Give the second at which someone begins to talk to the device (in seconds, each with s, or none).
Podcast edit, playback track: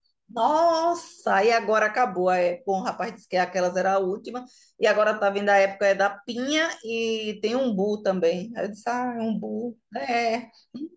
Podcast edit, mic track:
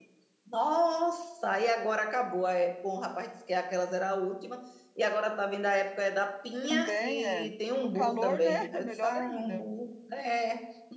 6.6 s